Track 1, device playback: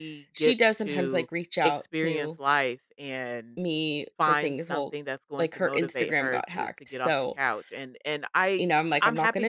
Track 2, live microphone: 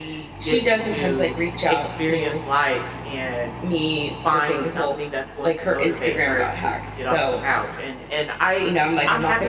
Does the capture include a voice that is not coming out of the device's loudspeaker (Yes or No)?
No